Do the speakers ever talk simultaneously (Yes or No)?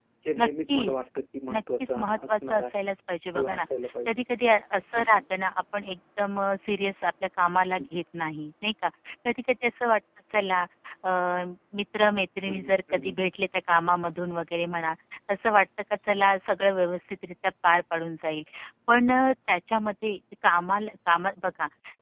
Yes